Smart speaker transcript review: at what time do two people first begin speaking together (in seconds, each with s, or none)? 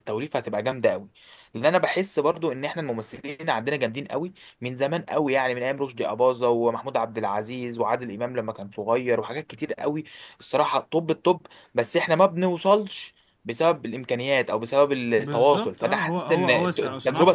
15.2 s